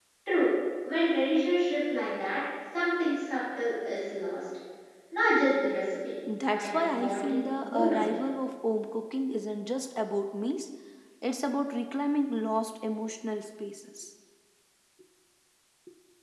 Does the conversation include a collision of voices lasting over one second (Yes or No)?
Yes